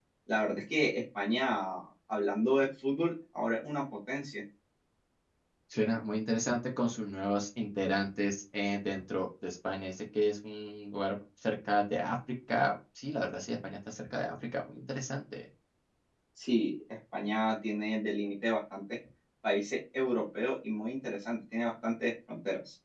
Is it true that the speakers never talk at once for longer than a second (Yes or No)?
Yes